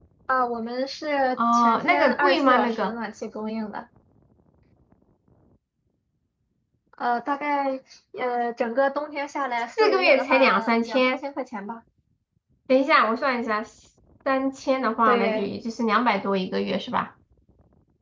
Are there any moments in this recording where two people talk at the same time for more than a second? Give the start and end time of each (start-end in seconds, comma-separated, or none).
1.4-2.9, 9.8-11.2